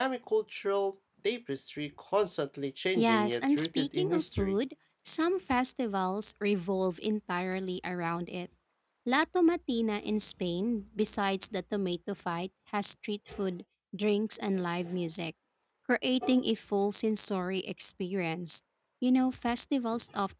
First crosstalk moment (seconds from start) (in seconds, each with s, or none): 3.0 s